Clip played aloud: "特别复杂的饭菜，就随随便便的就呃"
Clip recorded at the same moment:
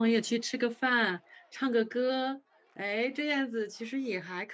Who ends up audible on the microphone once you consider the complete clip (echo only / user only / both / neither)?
user only